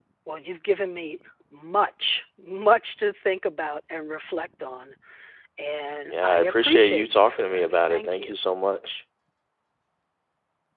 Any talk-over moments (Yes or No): Yes